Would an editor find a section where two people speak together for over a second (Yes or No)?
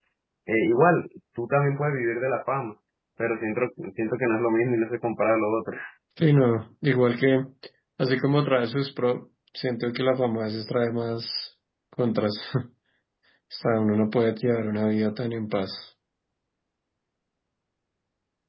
No